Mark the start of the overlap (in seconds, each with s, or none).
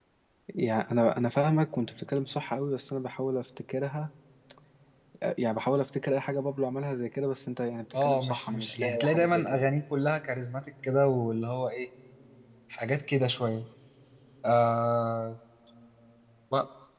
7.9 s